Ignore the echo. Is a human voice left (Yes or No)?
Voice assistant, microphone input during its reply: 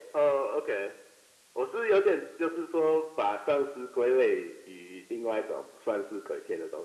No